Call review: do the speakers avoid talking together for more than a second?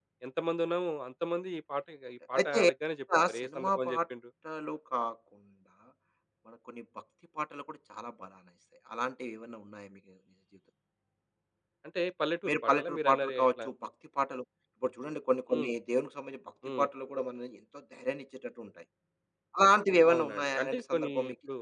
No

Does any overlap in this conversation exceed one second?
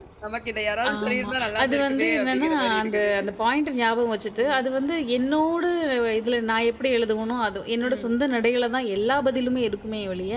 Yes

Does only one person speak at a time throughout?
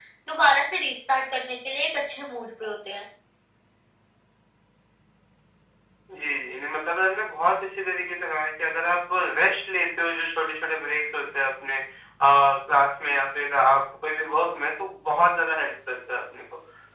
Yes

